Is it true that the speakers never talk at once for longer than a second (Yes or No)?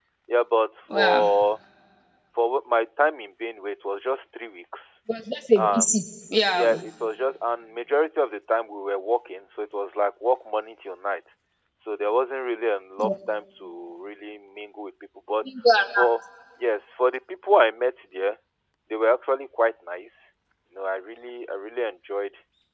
Yes